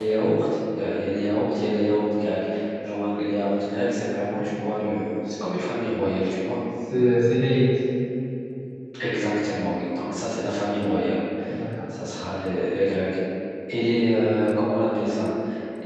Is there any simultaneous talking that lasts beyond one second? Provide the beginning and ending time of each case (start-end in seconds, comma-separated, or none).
none